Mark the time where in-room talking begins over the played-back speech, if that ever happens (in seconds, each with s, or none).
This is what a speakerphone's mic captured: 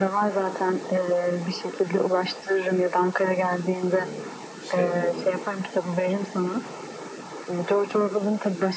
4.0 s